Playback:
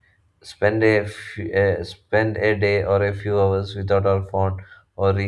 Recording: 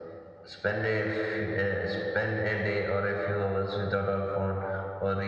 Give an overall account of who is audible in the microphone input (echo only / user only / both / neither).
echo only